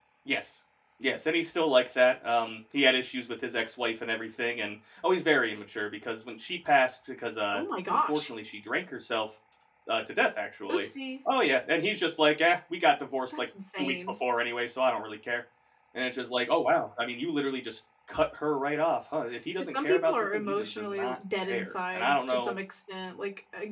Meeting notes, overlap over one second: present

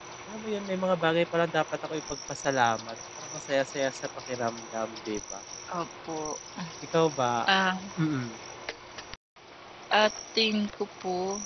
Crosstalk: none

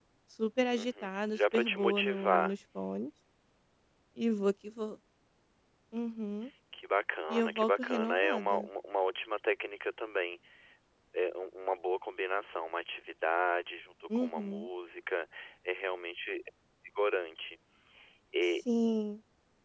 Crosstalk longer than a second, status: present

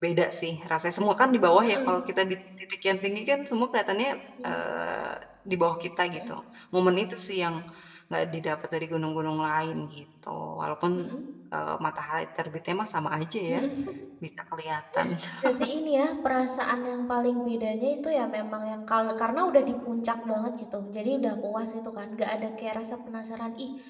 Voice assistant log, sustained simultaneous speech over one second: none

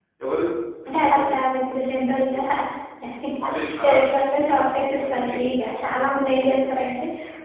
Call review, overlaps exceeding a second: none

